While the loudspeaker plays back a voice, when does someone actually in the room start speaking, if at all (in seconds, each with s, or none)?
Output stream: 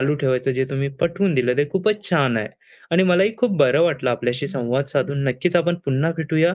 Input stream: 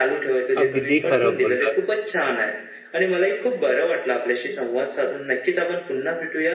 0.6 s